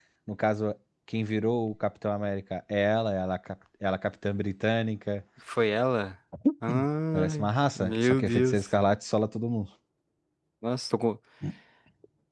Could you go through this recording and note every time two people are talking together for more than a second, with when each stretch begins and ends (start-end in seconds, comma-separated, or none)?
7.1-8.6